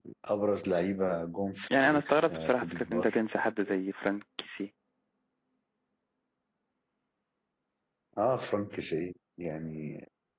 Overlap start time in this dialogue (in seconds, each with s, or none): 1.7 s